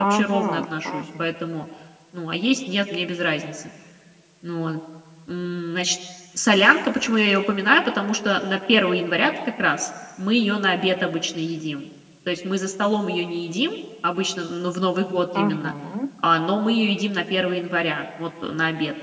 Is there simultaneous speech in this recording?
Yes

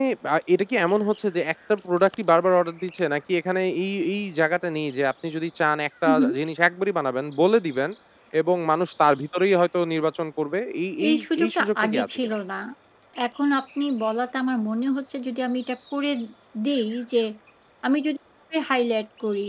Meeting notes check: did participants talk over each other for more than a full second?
Yes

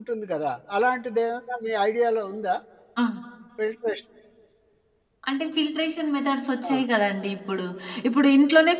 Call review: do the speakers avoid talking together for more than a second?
Yes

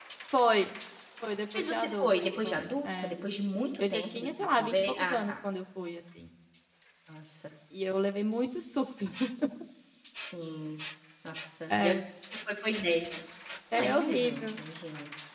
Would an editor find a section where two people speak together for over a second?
Yes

